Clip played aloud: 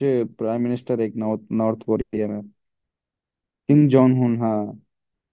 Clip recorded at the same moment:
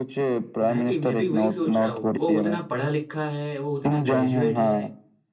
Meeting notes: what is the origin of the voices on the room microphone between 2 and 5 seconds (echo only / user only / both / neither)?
both